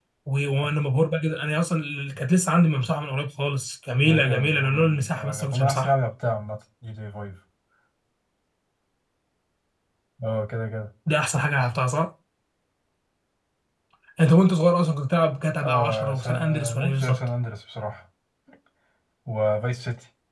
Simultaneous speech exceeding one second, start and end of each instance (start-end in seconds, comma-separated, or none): 4.0-5.9, 15.6-17.2